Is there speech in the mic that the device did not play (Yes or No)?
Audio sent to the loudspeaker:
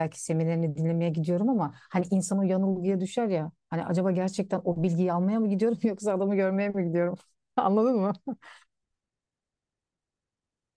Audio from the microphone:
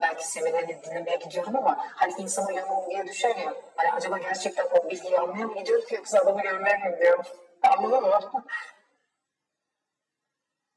No